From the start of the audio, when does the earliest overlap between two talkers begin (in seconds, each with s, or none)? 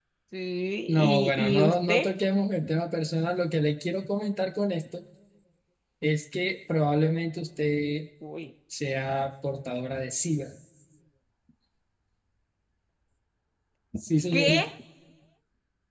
0.9 s